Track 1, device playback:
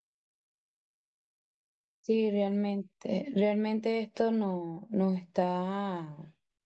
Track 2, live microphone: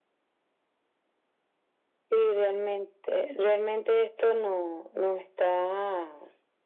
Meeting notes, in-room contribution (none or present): none